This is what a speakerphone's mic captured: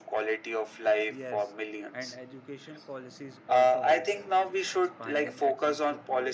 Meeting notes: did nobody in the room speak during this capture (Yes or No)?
No